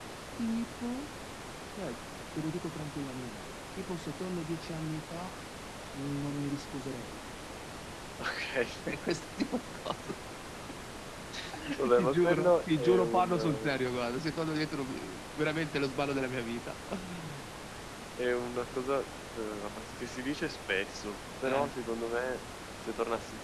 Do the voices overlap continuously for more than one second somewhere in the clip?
Yes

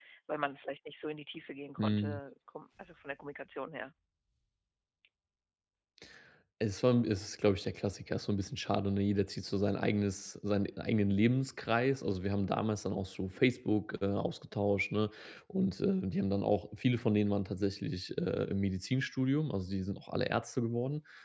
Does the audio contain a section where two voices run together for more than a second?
No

